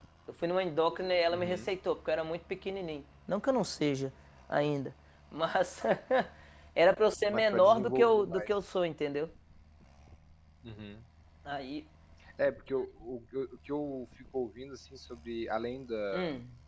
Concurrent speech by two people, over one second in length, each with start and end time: 7.3-8.5

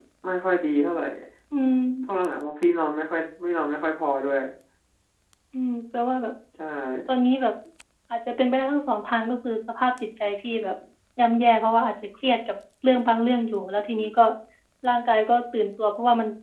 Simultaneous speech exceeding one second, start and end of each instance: none

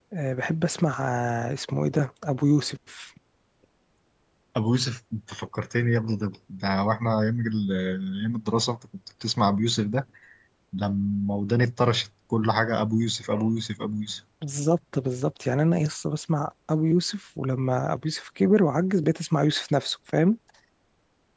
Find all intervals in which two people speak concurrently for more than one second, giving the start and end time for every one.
none

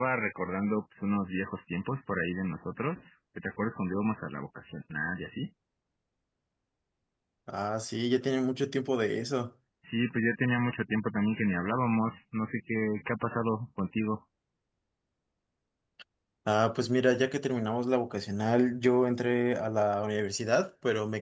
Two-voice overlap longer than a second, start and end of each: none

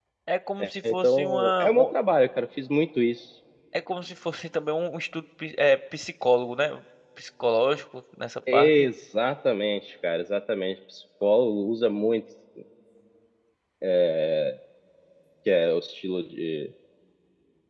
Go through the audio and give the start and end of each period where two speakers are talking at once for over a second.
0.6-1.9

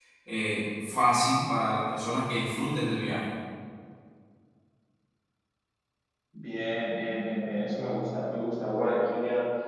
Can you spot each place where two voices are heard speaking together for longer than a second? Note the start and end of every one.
none

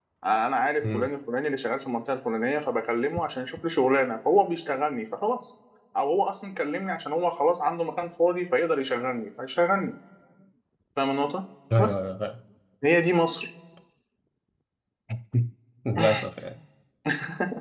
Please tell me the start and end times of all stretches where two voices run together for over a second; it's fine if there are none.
none

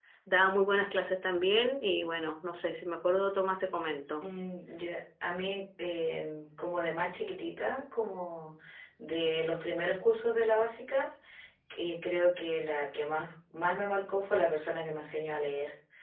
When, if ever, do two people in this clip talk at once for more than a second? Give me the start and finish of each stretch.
none

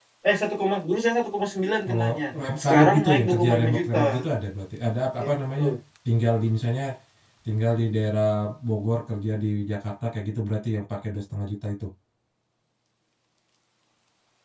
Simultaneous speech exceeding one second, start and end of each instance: 2.6-4.0

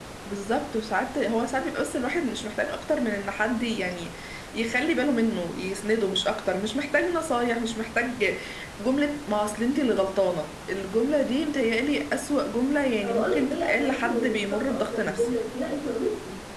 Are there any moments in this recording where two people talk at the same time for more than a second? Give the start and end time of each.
13.0-15.3

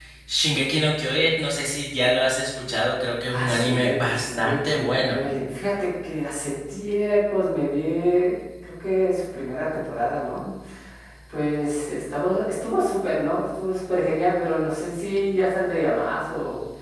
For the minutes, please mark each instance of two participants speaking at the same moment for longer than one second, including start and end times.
3.3-5.2

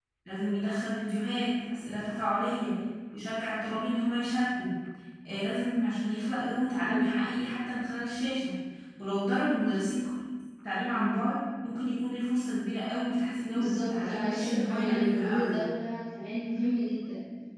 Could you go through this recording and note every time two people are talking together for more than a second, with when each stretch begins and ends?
13.6-15.6

